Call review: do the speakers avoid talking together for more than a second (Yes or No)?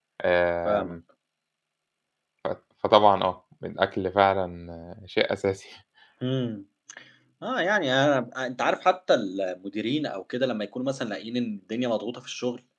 Yes